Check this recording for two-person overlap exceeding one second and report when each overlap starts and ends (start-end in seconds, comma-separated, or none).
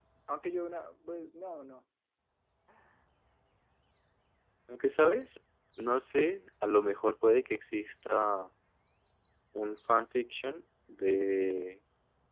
none